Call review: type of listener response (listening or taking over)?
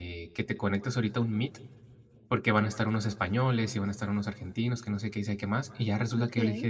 listening